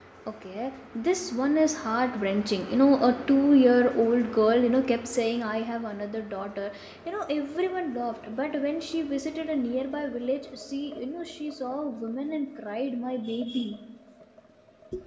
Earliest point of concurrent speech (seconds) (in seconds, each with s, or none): none